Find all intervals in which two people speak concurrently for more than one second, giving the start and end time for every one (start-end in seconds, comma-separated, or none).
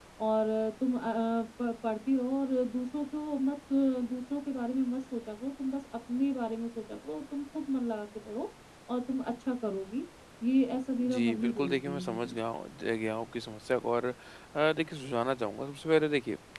11.0-12.3